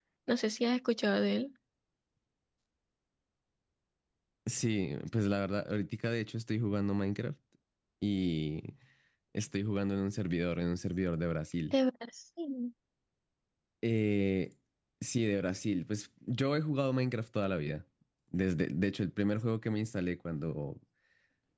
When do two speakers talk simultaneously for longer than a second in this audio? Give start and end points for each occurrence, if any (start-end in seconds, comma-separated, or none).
none